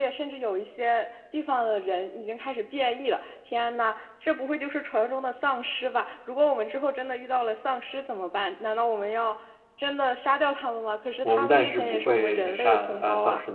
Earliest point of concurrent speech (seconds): 11.2 s

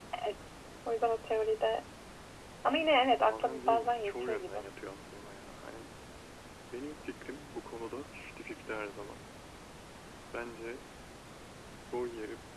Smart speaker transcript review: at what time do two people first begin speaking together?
3.2 s

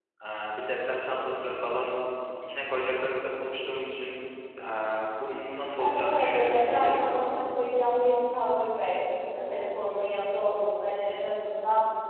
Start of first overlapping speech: 5.8 s

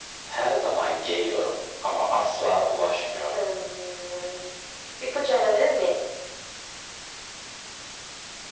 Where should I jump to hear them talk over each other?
none

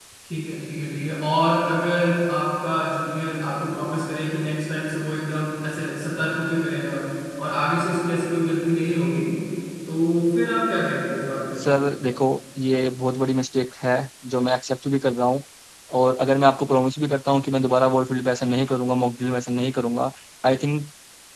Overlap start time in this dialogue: none

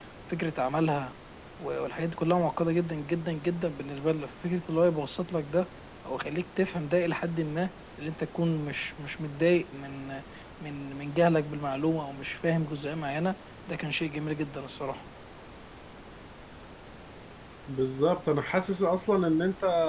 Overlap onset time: none

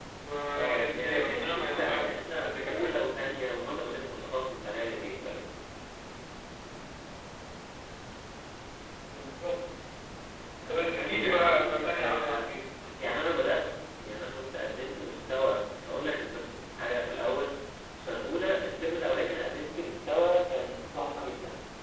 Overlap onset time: 0.6 s

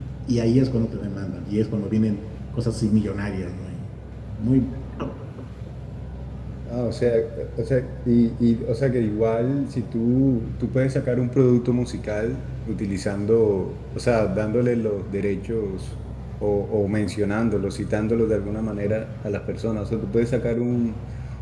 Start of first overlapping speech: none

